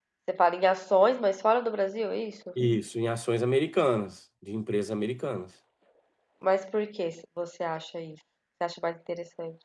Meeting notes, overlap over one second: none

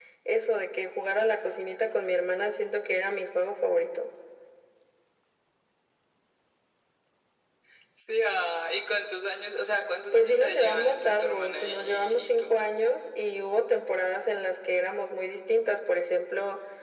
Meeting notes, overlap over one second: present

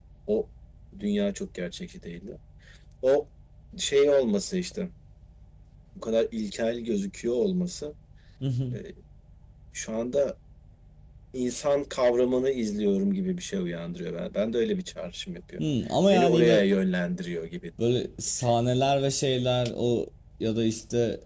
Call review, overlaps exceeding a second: none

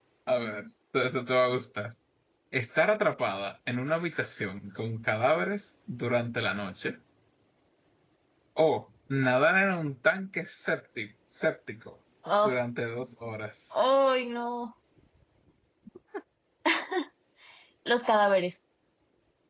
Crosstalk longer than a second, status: none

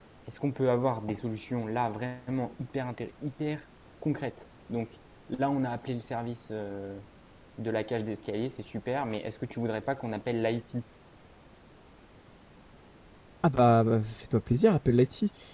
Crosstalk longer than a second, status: none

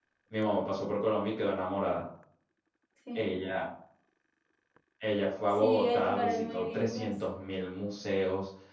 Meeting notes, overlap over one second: present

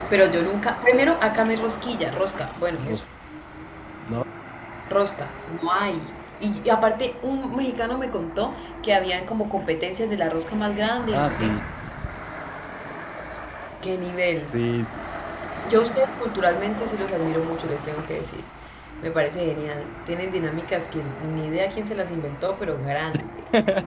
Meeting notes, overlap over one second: none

